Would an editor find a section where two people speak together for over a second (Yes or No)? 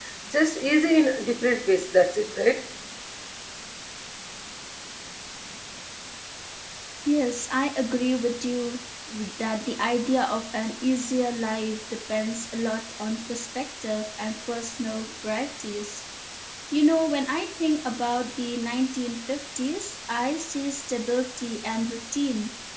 No